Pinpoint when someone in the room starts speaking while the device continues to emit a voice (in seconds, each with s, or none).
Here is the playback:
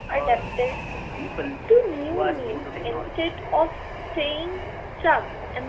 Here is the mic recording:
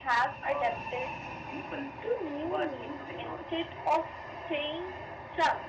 none